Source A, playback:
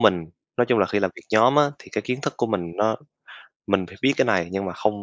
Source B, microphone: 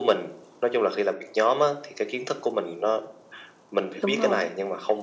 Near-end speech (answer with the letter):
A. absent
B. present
B